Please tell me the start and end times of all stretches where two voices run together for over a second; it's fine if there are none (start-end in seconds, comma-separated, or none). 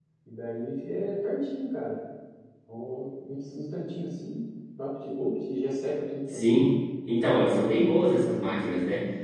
none